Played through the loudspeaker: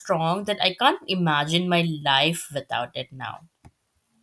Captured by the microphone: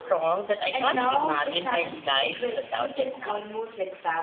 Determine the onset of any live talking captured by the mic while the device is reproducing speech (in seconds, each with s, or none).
0.7 s